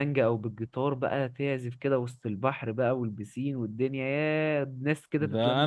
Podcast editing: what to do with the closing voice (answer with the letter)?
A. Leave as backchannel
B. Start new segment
B